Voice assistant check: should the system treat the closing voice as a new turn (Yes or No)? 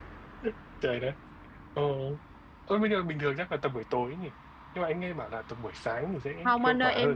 Yes